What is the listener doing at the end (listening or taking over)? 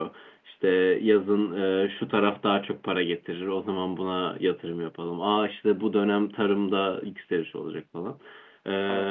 listening